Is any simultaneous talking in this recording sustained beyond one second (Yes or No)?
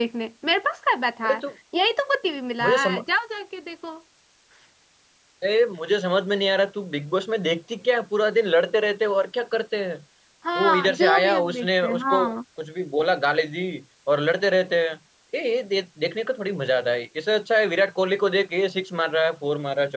Yes